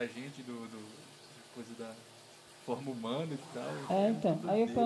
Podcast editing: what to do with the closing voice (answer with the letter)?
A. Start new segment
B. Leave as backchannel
A